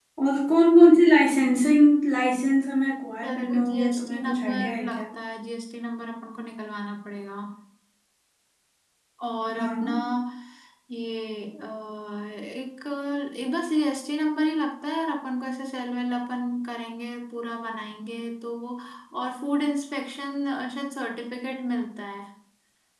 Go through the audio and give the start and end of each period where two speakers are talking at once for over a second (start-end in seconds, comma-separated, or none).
3.2-5.0